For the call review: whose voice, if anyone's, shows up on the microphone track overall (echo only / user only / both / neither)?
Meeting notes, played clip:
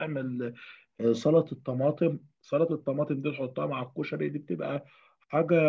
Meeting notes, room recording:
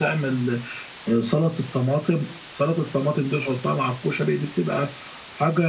echo only